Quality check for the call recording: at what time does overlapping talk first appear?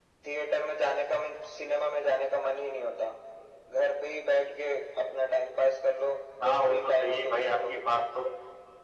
6.4 s

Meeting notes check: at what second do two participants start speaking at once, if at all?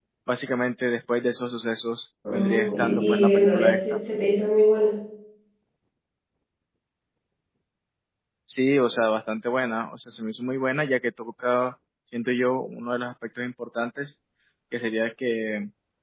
2.2 s

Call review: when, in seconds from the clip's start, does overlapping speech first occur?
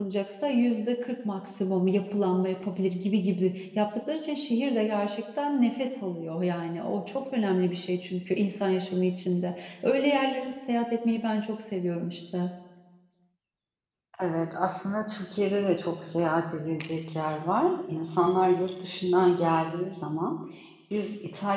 none

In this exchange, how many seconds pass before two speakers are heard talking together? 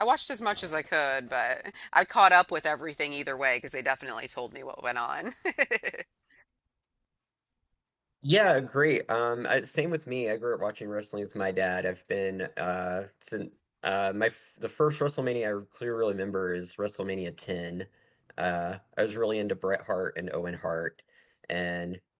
none

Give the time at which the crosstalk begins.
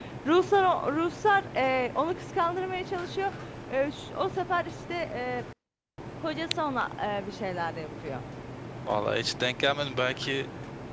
none

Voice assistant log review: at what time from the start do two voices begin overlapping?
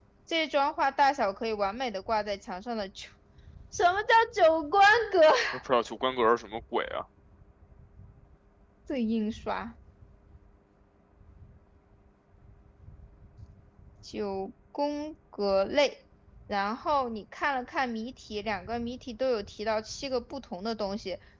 none

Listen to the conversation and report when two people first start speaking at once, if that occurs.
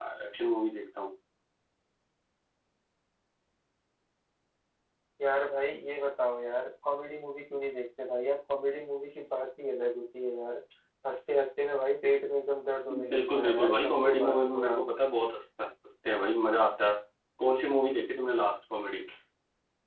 12.9 s

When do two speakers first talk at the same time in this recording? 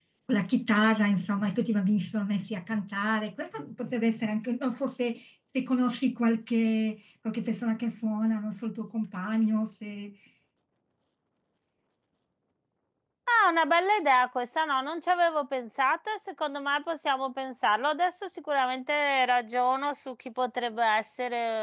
none

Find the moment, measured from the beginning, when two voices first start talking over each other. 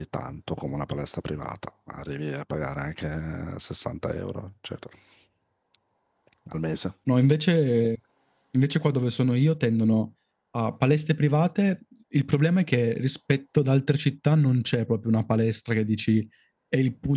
none

